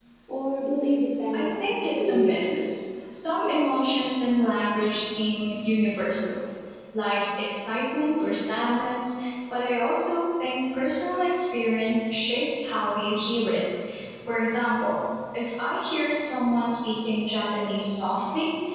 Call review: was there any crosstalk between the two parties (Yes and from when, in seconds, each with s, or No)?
Yes, from 1.3 s